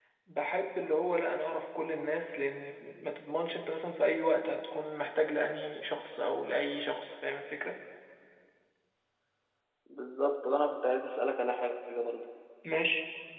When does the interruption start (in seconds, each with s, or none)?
none